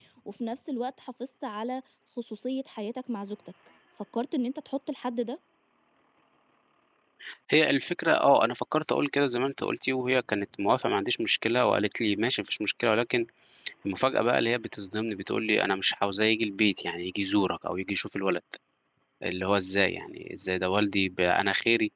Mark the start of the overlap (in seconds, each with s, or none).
none